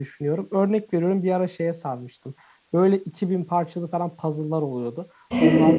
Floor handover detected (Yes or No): No